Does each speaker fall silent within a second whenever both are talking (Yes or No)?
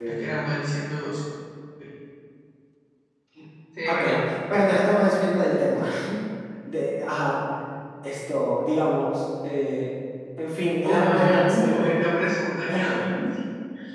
No